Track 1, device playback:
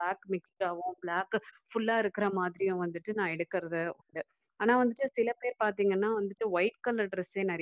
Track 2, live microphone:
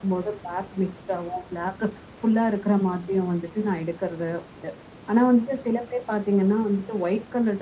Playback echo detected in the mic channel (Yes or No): Yes